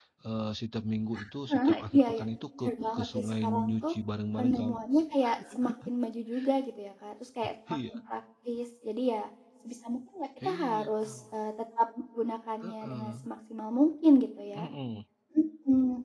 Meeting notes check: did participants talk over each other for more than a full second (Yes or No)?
Yes